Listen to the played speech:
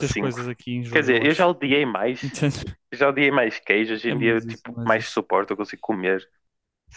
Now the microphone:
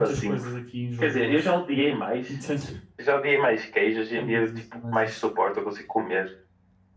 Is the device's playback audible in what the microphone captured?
Yes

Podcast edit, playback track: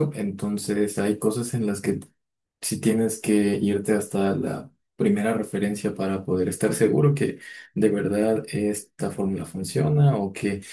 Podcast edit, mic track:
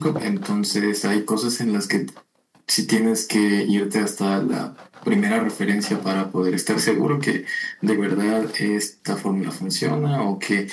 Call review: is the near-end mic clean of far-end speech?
No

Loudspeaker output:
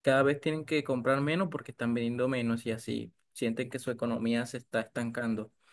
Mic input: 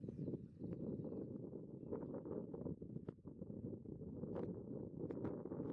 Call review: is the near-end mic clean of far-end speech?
Yes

